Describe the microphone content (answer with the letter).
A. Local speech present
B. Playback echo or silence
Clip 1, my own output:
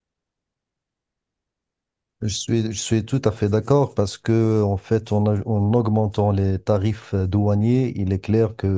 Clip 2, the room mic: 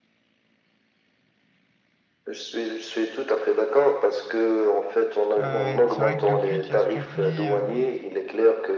A